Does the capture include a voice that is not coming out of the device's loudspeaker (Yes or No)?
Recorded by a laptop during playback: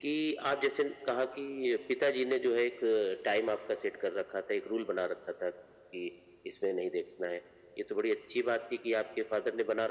No